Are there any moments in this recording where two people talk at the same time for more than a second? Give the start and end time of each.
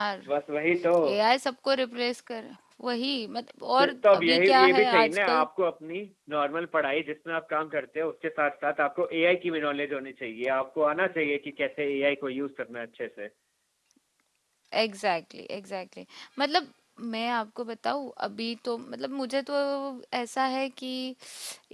3.8-5.5

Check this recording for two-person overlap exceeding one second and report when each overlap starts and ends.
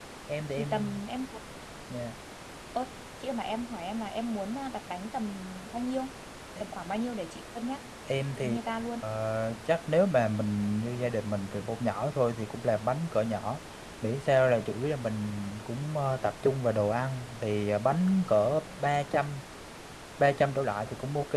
none

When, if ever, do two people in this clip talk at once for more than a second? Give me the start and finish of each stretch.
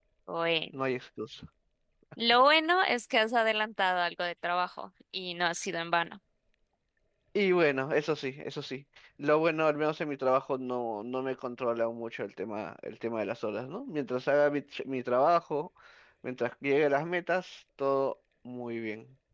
none

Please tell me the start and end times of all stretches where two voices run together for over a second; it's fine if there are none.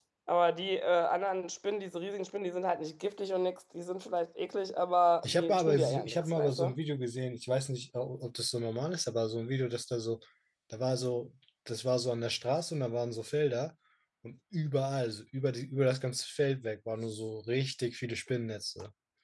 5.2-6.7

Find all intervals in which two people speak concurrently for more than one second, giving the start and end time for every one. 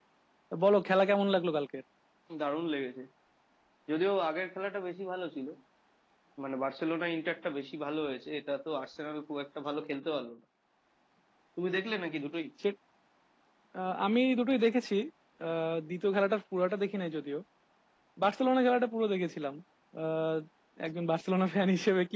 none

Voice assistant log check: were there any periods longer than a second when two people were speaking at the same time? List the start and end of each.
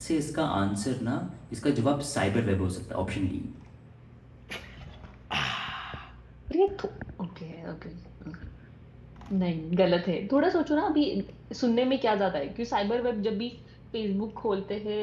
none

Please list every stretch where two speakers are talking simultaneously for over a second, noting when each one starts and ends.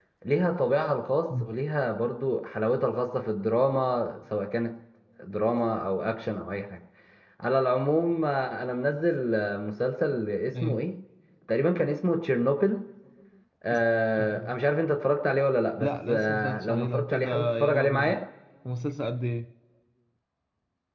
15.8-18.2

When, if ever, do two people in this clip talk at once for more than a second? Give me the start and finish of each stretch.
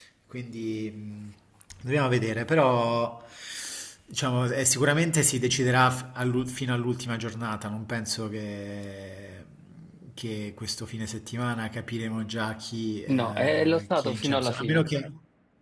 13.1-14.9

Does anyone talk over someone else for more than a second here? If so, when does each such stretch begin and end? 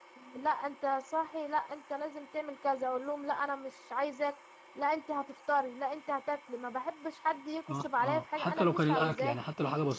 7.7-9.4

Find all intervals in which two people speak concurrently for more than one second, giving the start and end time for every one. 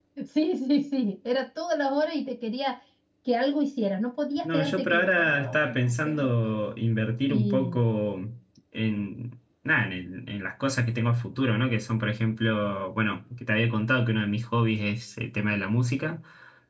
4.4-6.3

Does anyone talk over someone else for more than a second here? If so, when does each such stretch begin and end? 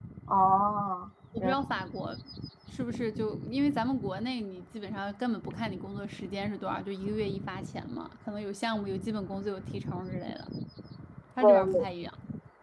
none

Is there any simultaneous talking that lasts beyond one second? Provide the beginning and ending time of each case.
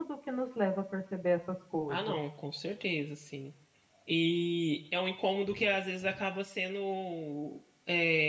none

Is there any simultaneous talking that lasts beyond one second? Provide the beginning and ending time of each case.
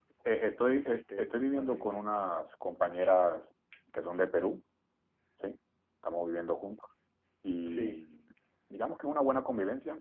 0.8-2.0

